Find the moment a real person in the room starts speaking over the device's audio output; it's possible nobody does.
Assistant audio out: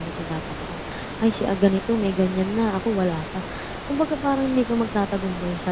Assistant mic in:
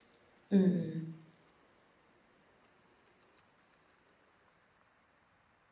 0.5 s

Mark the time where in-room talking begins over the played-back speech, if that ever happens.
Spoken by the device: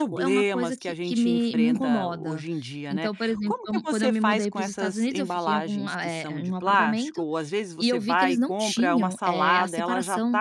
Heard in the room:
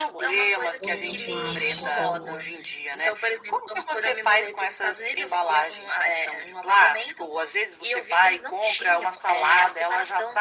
0.8 s

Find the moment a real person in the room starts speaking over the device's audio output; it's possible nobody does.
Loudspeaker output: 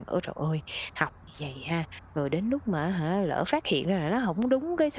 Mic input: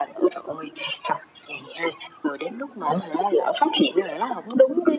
none

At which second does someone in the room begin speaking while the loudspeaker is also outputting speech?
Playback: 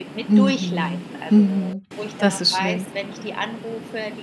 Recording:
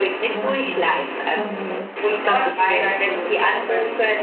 2.3 s

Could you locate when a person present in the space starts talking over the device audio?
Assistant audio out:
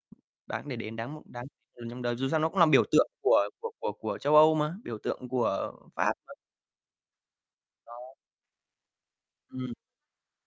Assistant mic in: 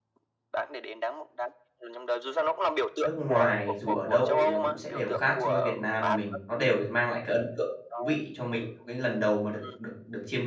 3.0 s

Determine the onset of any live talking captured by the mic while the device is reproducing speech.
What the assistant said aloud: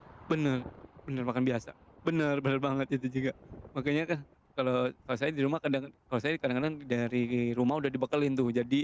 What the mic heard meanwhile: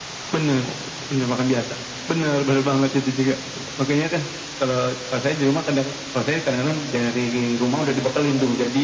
none

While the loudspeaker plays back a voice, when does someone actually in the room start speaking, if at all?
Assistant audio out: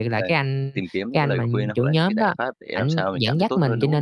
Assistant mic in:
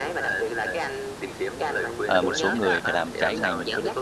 2.1 s

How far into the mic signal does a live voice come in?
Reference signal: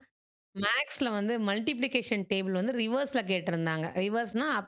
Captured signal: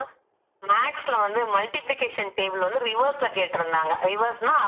none

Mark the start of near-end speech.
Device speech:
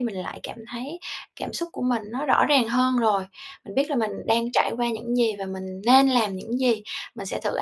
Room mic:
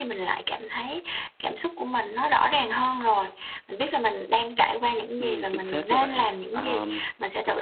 5.2 s

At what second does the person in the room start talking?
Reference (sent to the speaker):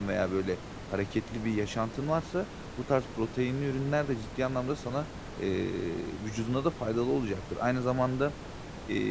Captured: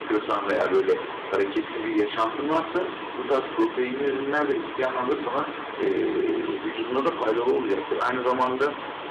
none

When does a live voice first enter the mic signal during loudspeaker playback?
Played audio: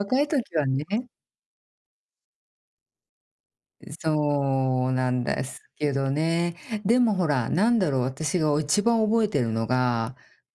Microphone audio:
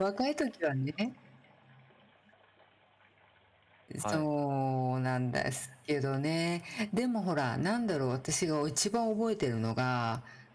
4.0 s

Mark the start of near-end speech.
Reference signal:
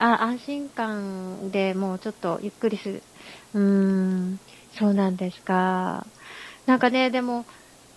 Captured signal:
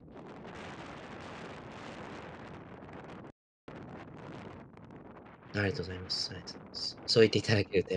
5.6 s

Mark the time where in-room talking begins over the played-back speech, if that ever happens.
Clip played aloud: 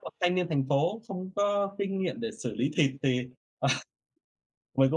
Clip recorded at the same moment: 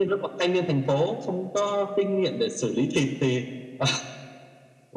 none

